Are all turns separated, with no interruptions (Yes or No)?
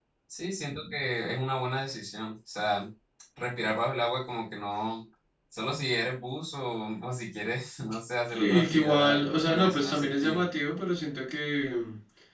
No